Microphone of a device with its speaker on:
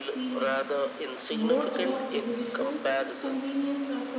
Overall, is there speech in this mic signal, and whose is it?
both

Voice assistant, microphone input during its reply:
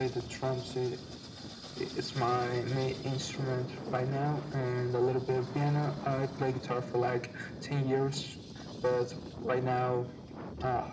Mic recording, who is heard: echo only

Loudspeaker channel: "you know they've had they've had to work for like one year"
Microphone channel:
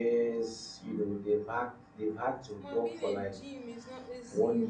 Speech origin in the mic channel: both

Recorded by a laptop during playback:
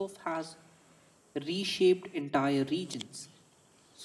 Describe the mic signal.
user only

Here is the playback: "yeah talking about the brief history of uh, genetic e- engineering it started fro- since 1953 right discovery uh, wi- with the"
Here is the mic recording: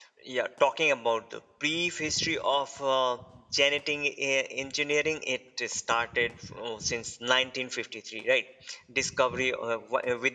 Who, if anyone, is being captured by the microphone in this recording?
echo only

